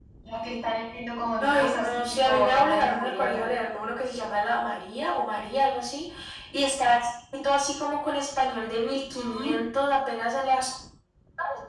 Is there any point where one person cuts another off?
Yes, from 1.4 s

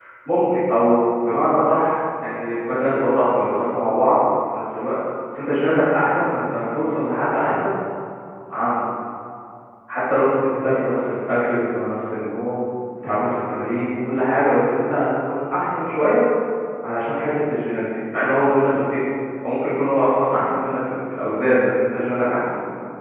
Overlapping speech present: No

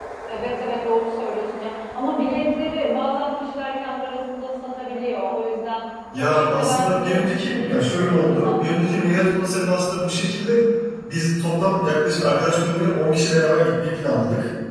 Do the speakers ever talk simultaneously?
Yes, from 6.1 s

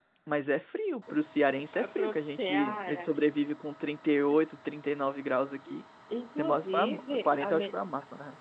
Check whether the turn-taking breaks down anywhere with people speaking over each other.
Yes, from 1.7 s

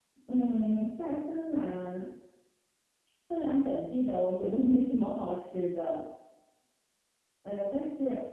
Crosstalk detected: No

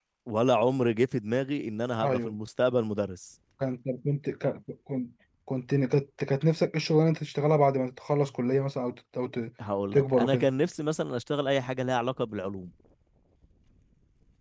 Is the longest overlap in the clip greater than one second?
No

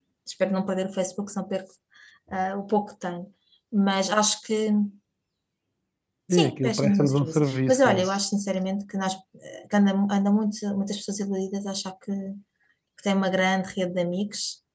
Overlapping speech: Yes, from 6.3 s

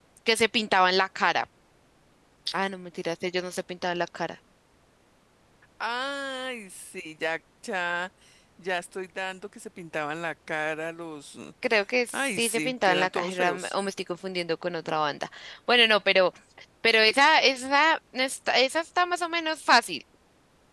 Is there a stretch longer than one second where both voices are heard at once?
Yes, from 12.1 s

